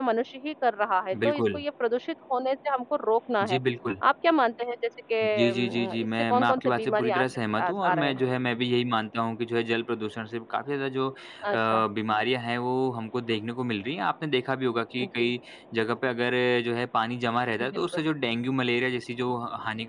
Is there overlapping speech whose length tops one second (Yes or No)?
Yes